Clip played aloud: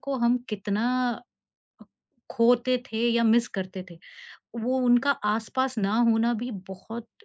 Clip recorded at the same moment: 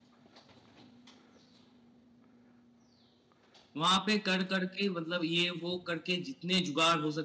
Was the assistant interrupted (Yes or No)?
Yes